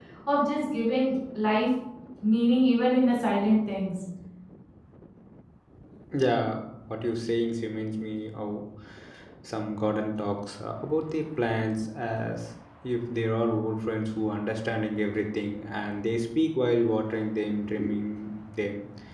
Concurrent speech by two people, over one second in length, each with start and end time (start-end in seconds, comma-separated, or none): none